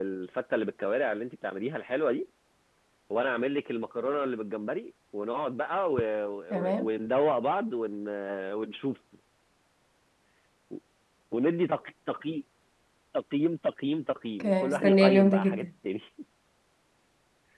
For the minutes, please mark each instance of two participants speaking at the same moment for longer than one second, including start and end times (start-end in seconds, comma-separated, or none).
14.4-15.6